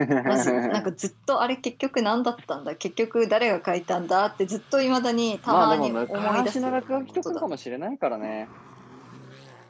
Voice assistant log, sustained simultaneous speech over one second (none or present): present